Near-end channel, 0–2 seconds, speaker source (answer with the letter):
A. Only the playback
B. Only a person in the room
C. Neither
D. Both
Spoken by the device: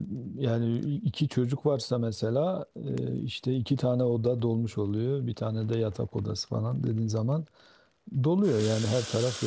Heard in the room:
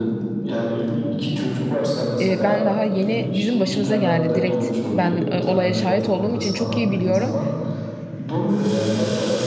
A